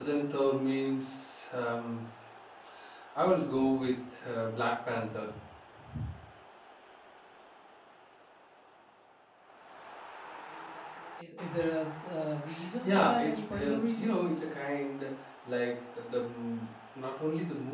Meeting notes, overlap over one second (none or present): present